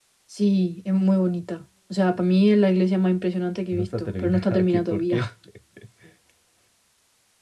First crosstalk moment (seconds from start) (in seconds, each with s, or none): 3.7 s